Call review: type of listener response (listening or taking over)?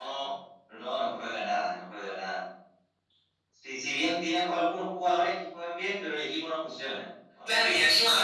taking over